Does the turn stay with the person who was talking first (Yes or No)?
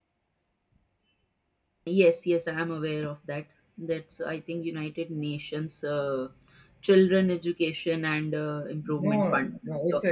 No